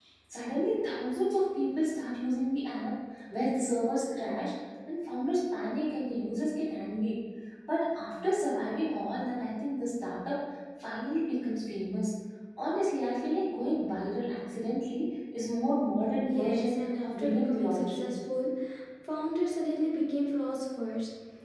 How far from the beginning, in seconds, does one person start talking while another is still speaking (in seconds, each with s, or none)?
16.2 s